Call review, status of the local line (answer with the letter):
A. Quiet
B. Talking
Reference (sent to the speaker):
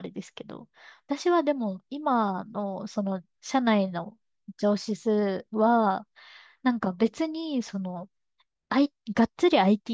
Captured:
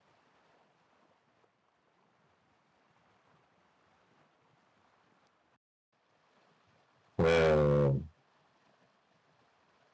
B